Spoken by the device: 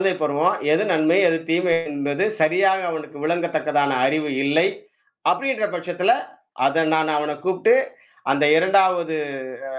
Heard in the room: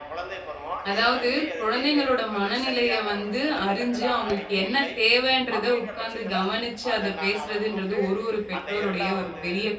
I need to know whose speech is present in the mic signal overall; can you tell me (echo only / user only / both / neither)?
both